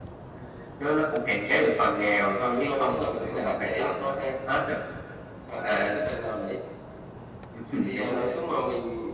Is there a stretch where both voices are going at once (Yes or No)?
Yes